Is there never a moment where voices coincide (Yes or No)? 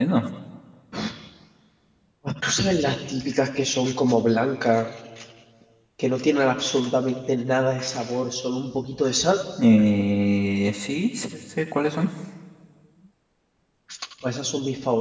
Yes